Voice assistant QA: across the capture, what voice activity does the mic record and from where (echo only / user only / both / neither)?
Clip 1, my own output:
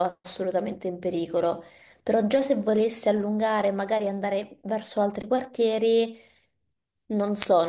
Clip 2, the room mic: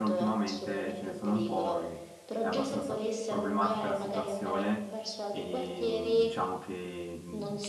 both